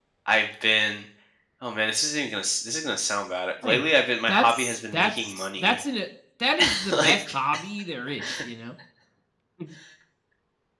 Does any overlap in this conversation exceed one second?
Yes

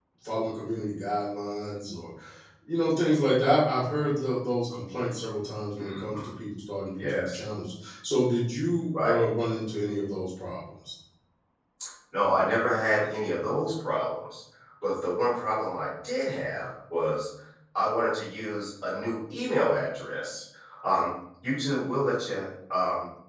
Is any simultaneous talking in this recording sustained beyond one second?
No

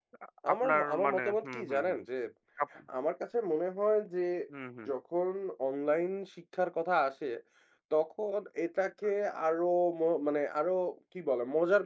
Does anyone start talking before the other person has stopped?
Yes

